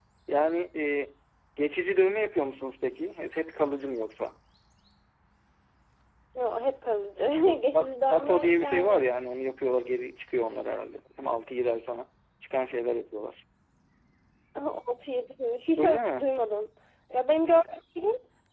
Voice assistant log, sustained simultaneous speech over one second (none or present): present